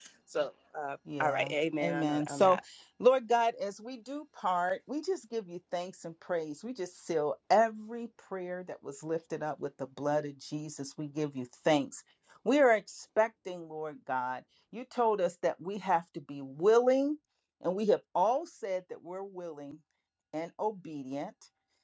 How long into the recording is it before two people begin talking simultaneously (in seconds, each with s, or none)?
1.2 s